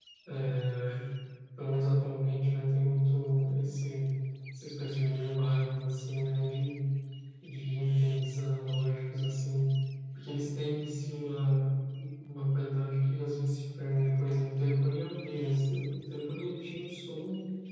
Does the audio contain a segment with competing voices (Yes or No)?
No